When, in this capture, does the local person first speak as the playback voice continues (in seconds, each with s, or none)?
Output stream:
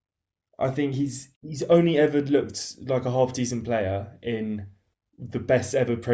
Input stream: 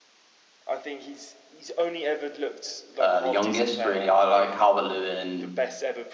3.0 s